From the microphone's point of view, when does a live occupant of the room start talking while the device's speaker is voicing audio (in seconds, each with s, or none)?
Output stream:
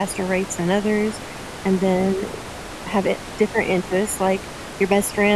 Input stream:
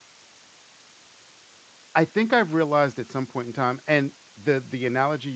1.9 s